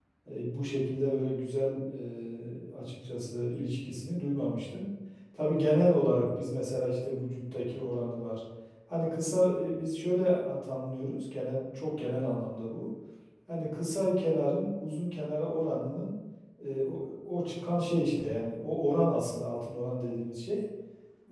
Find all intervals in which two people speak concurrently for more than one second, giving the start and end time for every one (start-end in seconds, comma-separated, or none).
none